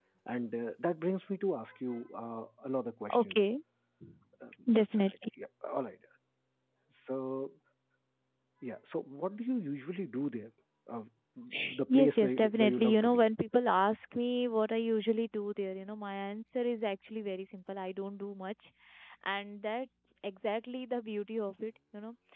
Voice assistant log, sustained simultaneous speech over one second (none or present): present